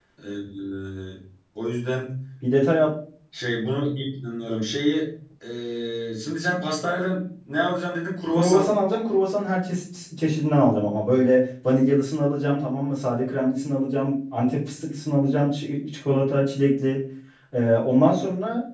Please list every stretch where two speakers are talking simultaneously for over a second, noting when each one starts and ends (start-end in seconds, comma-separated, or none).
none